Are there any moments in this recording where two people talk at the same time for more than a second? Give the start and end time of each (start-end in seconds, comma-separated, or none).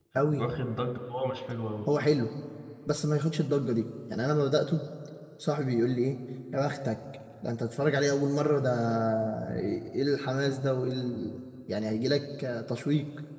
none